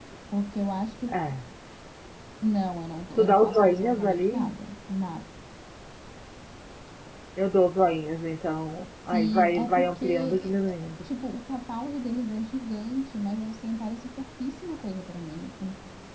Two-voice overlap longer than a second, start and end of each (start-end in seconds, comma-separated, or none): 3.2-4.5, 9.1-11.0